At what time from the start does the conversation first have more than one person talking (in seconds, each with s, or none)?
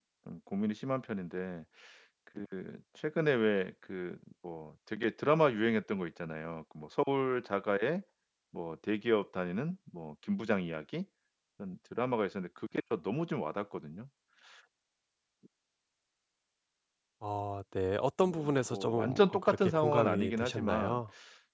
18.2 s